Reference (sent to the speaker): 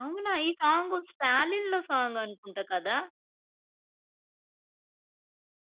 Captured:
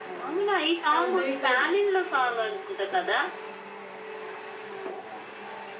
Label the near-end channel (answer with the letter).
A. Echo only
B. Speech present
B